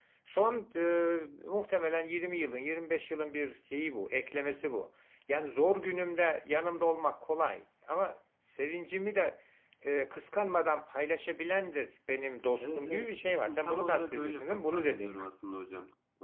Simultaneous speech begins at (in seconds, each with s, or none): 12.6 s